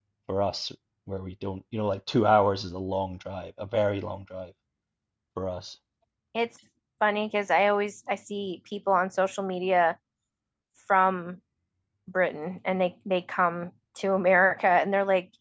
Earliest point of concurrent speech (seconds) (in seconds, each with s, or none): none